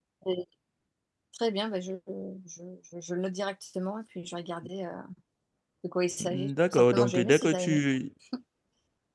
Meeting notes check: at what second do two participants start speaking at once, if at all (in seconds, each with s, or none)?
6.2 s